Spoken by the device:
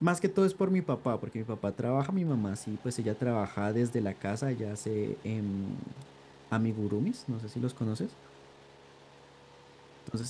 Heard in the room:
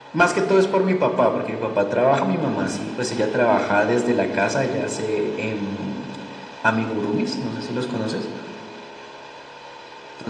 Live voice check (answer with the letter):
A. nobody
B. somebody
A